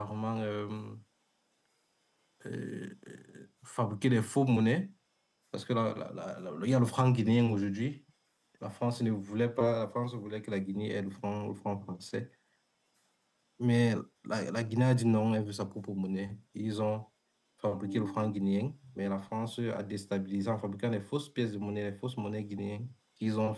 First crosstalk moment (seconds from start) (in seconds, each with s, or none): none